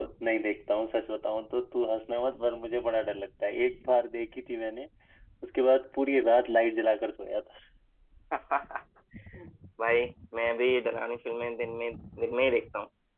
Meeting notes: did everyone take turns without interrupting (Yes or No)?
Yes